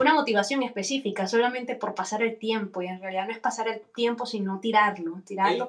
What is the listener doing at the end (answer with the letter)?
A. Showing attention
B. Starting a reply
B